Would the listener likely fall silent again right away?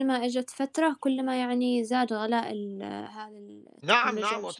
No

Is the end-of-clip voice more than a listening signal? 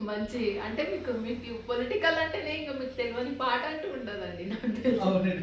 Yes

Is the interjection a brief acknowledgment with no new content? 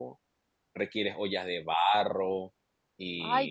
No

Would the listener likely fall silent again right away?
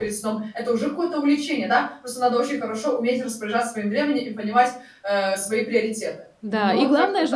No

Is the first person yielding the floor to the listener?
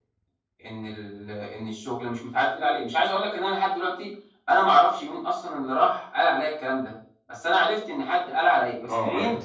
Yes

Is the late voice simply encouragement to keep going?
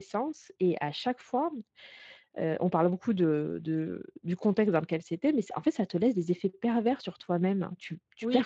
No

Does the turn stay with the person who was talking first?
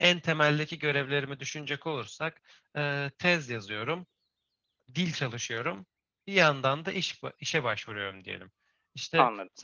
Yes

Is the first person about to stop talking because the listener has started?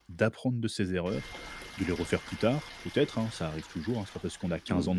No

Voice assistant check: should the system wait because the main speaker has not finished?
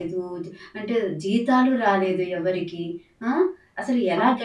Yes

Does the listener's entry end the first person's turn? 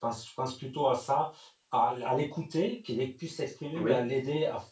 No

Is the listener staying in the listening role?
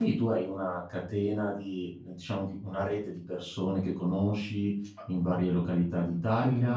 No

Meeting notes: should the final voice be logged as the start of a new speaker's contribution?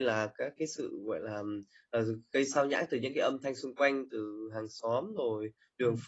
No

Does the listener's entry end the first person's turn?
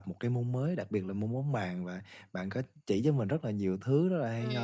No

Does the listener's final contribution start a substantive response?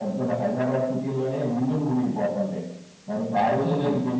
No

